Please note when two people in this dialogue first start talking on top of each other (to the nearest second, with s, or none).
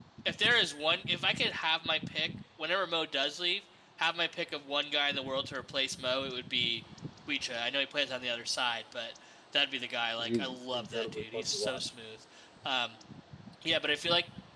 10 s